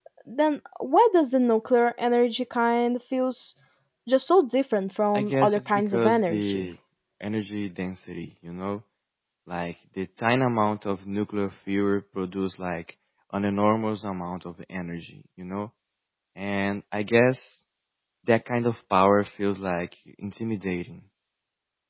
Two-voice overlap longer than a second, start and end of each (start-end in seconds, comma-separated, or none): 5.1-6.7